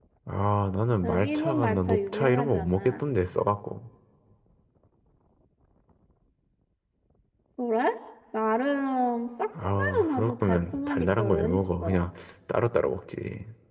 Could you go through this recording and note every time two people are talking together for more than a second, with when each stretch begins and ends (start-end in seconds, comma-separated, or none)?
1.0-3.0, 9.8-12.0